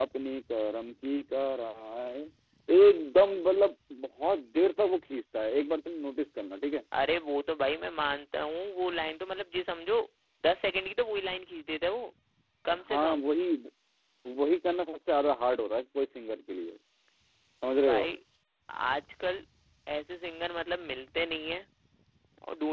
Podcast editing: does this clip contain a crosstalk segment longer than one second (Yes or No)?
No